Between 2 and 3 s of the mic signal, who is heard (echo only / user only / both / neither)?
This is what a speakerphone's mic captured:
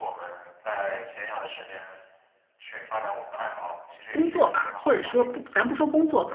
echo only